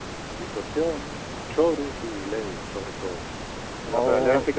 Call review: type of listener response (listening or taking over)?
taking over